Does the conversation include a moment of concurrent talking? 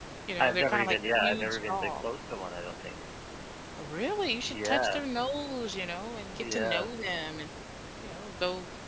Yes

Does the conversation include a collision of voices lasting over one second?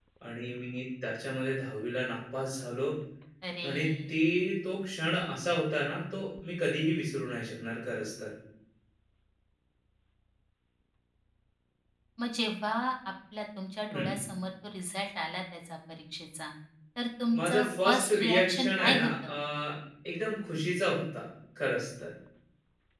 Yes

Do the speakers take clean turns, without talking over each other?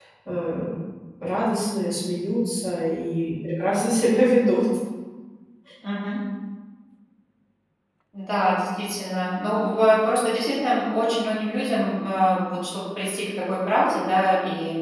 Yes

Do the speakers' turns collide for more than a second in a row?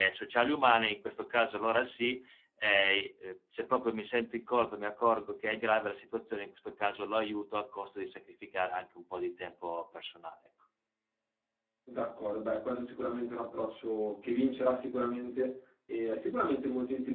No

